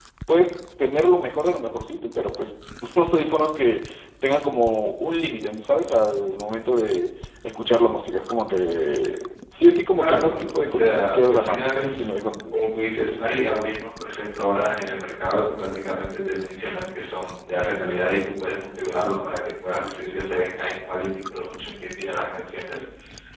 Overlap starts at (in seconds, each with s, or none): 10.0 s